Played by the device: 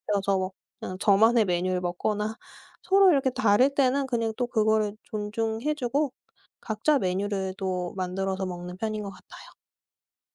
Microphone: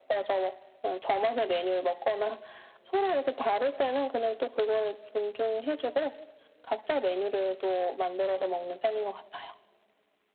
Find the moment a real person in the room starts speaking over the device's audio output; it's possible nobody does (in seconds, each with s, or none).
none